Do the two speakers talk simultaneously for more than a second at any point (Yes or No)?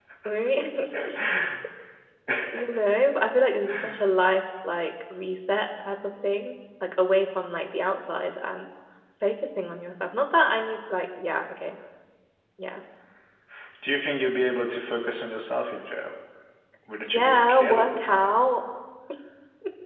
Yes